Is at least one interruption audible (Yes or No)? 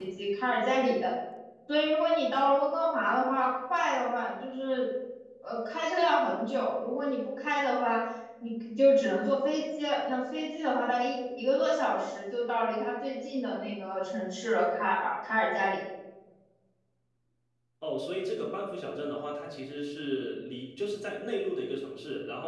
No